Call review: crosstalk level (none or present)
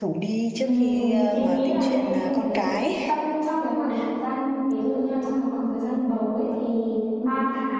present